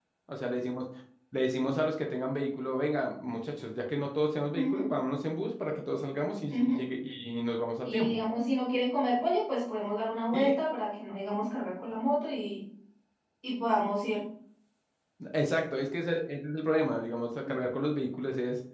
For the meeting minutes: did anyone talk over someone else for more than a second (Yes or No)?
No